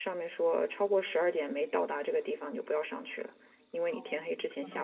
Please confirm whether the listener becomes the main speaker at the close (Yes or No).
Yes